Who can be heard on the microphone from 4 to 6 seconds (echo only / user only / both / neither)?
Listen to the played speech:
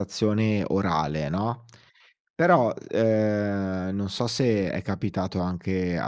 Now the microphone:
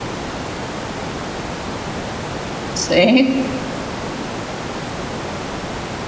neither